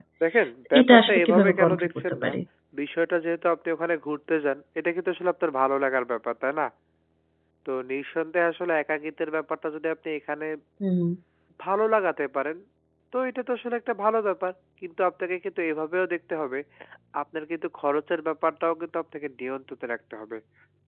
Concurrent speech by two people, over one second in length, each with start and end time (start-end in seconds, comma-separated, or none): 0.8-2.3